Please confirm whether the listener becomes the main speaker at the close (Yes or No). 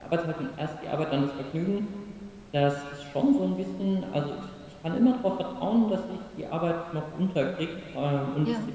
No